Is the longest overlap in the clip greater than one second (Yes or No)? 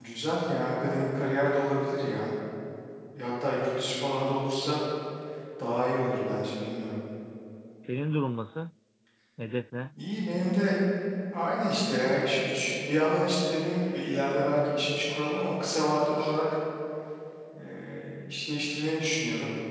No